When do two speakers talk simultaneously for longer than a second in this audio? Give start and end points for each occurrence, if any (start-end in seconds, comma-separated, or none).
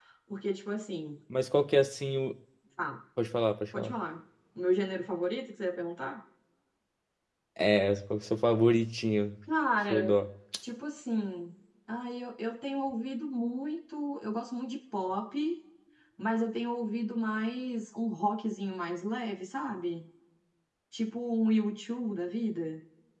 none